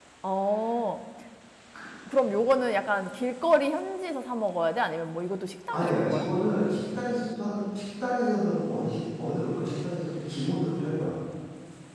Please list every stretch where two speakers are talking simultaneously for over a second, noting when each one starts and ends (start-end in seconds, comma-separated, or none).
none